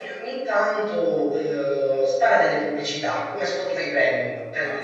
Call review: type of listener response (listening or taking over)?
taking over